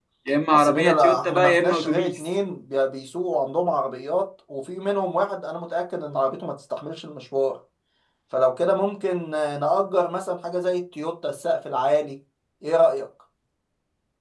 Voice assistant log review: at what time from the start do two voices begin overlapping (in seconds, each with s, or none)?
0.5 s